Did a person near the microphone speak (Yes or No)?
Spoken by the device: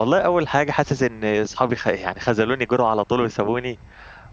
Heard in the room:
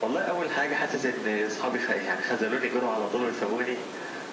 No